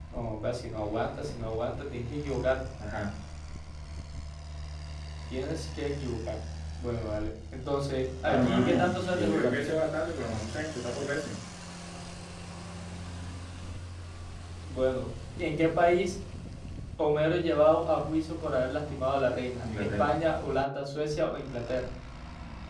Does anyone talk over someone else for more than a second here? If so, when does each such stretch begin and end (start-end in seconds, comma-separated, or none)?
8.2-9.8